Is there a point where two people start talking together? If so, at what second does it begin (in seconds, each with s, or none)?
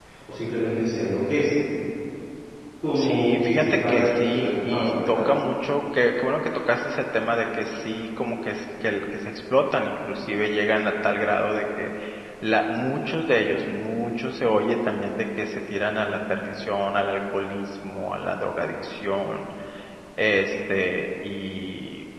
3.0 s